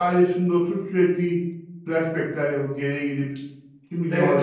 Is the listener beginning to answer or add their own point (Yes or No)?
Yes